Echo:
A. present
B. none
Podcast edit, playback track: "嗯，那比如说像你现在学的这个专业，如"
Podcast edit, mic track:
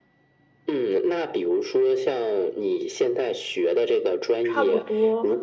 A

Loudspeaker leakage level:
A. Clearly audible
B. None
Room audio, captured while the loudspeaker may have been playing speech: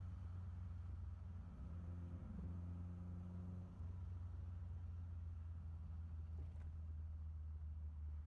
B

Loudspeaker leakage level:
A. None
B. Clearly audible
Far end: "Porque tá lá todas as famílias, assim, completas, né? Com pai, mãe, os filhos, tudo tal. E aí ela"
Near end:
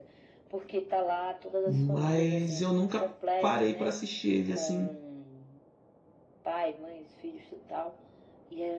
B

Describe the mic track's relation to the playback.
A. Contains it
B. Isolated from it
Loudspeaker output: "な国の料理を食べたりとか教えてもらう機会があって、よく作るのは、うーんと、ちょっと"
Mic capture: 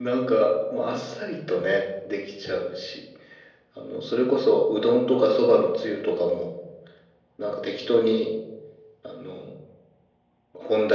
B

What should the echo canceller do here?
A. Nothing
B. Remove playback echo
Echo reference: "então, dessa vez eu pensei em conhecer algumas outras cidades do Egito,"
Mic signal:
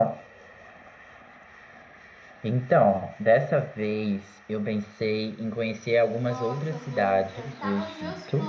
B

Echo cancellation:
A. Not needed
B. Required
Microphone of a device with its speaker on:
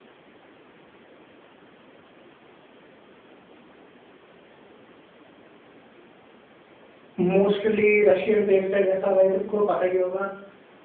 A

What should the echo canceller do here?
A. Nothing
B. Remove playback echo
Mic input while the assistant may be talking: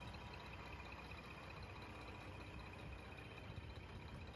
A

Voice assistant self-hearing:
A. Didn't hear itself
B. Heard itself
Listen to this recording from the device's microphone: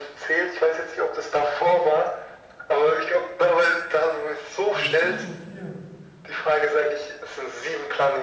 B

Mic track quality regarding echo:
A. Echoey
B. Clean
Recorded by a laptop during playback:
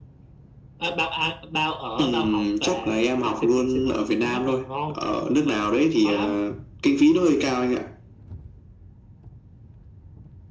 A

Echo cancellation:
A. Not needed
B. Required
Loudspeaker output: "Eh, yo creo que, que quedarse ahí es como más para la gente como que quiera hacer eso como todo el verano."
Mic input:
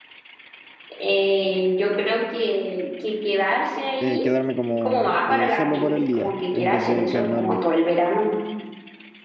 B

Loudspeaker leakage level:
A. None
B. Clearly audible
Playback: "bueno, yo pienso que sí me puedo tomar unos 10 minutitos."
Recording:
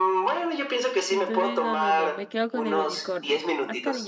B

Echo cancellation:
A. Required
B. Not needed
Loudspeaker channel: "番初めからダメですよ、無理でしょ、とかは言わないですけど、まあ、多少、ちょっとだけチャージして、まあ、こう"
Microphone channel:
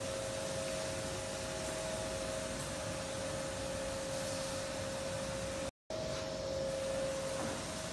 B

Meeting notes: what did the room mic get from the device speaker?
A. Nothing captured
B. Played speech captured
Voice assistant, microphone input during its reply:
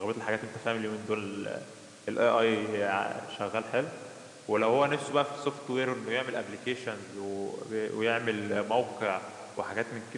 A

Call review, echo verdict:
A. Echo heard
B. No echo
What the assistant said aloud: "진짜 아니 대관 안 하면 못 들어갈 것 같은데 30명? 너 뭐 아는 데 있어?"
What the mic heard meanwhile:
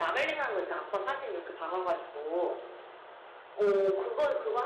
B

